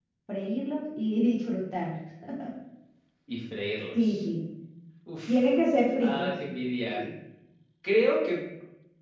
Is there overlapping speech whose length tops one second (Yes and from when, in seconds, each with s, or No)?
No